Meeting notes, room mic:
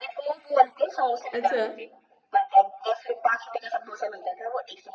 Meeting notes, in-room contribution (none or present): present